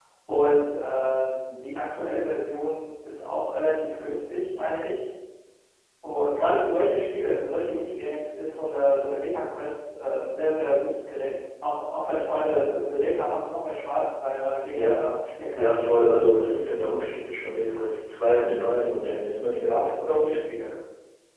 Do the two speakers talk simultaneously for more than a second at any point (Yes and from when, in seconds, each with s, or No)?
No